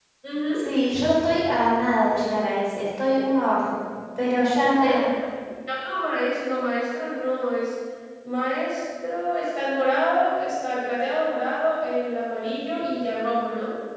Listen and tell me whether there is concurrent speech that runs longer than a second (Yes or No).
No